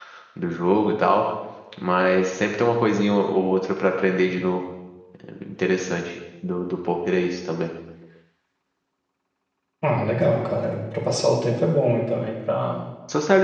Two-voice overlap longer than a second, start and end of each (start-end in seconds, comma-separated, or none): none